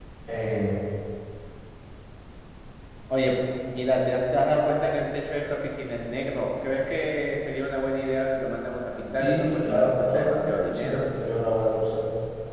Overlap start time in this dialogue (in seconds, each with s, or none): 9.1 s